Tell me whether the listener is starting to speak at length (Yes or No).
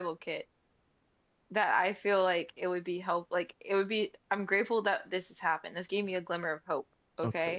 Yes